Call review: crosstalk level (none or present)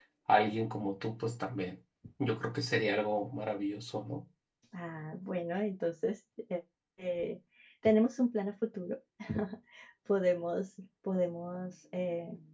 none